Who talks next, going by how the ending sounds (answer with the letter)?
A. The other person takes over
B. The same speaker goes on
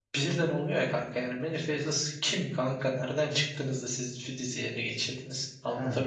A